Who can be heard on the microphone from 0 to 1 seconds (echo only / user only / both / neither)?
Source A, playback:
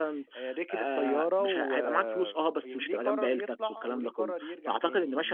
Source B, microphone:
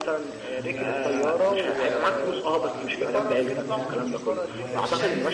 both